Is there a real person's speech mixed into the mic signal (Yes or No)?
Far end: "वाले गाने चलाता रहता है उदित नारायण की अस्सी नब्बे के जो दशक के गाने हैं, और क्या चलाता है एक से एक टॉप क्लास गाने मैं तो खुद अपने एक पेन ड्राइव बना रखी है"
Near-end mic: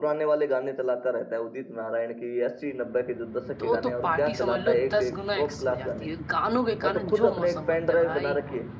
Yes